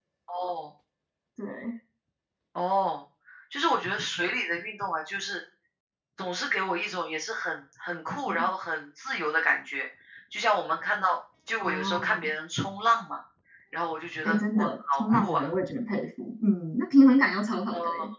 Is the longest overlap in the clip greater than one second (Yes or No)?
Yes